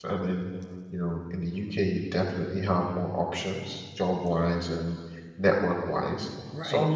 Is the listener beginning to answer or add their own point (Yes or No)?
Yes